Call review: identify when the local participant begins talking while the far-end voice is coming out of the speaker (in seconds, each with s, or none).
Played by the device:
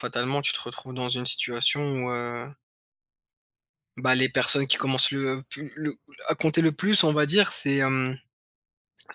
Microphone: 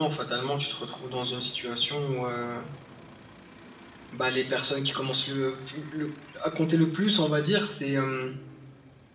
none